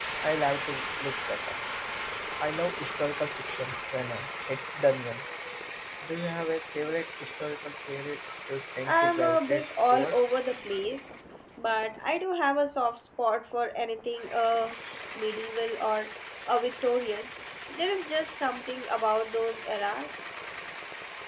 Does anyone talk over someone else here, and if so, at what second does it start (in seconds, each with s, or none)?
8.9 s